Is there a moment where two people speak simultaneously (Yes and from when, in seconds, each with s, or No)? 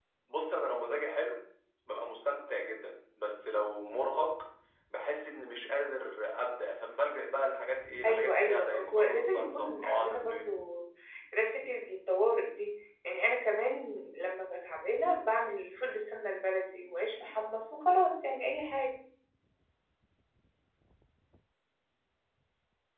Yes, from 8.0 s